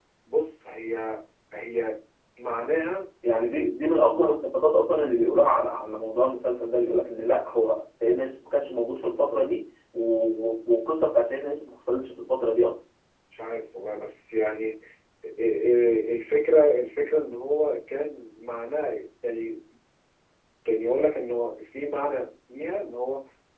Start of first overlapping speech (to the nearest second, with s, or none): none